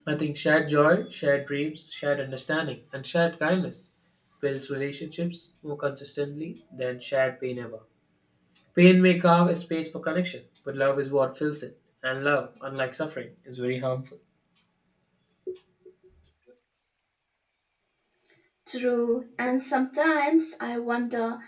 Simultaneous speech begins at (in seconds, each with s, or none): none